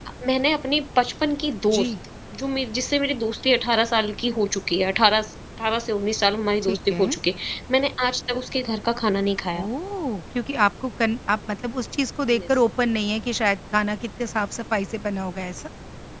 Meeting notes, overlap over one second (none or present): none